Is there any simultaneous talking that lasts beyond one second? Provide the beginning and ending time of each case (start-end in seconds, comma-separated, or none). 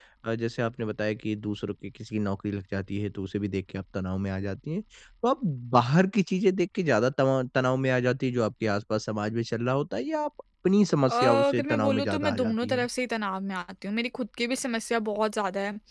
11.1-12.9